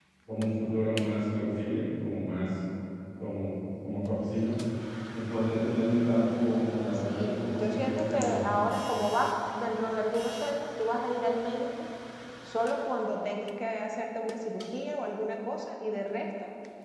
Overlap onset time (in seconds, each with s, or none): 7.1 s